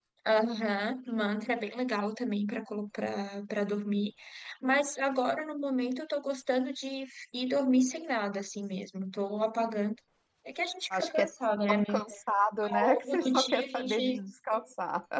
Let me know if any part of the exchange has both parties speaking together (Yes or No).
Yes